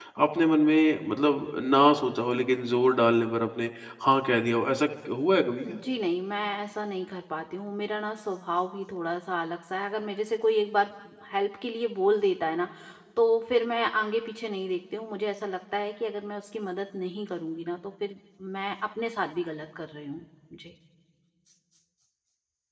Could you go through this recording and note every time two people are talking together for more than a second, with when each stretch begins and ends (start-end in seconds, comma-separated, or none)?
none